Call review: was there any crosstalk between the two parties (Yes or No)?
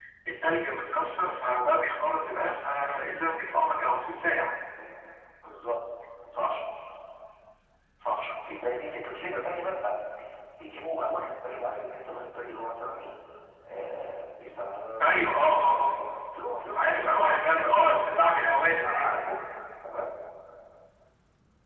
Yes